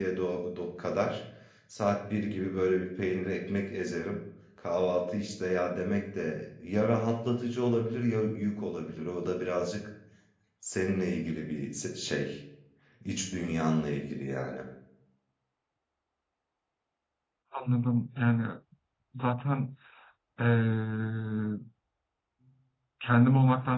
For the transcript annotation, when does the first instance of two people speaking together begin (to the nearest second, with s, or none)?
none